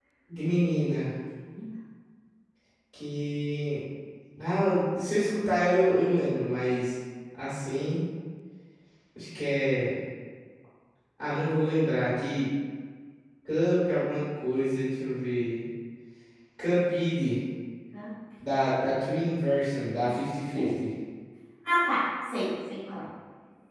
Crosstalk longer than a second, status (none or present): none